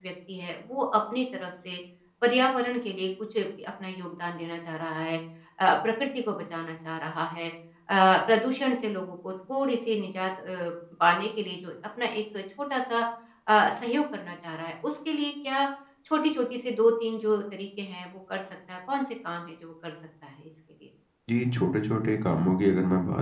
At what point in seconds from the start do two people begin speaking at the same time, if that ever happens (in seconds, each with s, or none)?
none